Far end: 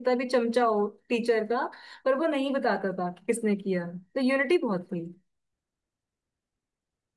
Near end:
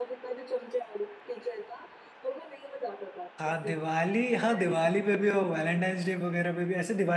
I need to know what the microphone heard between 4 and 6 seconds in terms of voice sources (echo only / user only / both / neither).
both